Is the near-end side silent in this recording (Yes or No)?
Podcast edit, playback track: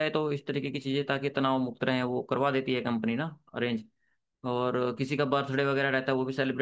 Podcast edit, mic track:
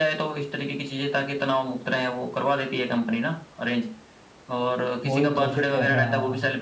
No